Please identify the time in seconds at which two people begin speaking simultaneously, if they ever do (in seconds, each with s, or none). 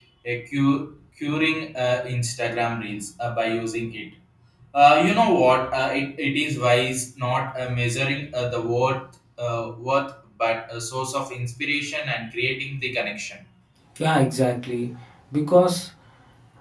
none